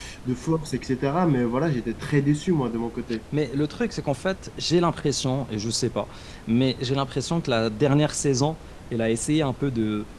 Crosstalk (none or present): none